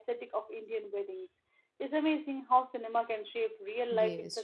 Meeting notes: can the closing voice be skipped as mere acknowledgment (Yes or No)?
No